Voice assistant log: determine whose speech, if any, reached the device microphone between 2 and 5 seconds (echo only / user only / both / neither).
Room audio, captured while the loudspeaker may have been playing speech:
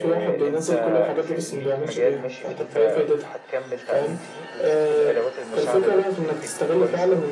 both